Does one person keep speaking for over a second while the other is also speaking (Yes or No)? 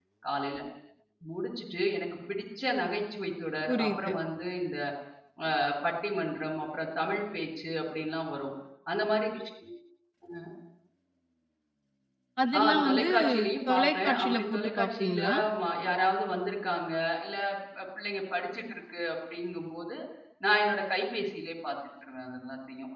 Yes